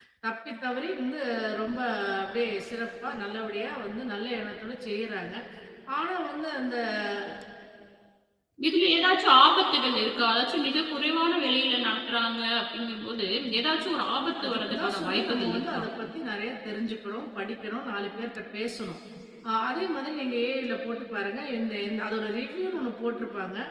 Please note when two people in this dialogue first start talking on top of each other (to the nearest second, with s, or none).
14 s